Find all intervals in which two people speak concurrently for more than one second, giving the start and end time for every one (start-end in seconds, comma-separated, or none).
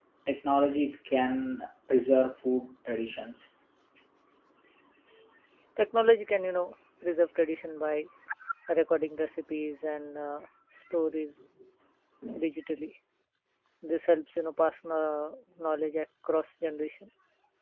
none